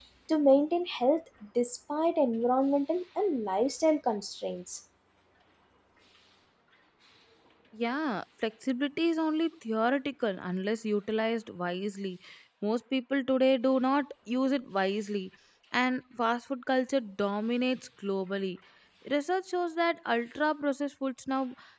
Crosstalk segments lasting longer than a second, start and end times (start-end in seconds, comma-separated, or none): none